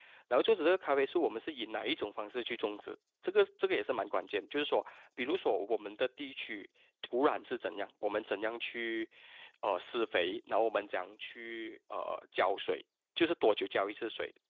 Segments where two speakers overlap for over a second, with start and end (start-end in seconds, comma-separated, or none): none